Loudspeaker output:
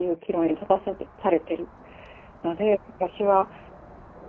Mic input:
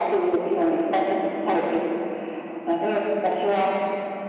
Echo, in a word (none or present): present